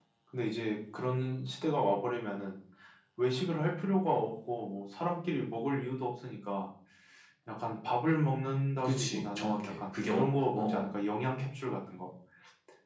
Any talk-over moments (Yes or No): Yes